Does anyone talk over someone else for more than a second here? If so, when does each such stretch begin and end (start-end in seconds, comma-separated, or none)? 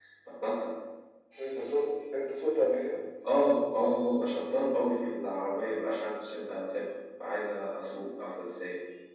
none